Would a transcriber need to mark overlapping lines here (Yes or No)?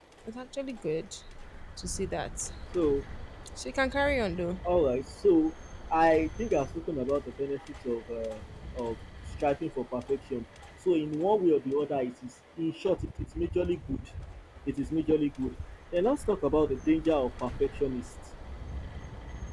No